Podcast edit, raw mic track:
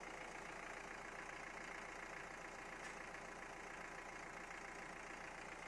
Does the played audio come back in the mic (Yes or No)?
No